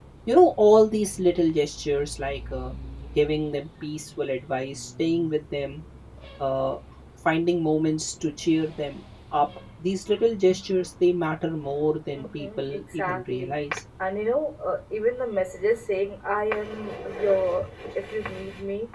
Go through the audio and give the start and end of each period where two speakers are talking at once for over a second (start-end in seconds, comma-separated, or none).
12.1-13.6